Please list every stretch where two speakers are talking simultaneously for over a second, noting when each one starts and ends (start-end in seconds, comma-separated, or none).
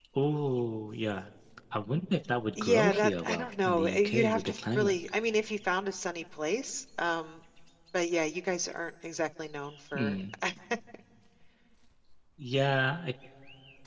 2.6-5.0